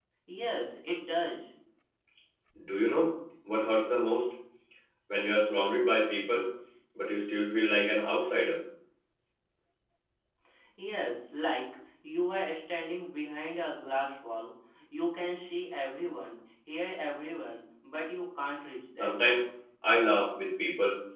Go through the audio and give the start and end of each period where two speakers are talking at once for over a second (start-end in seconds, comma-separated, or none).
none